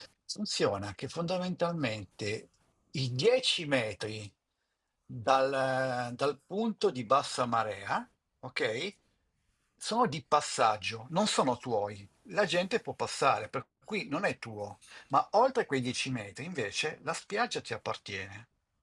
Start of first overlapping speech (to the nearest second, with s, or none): none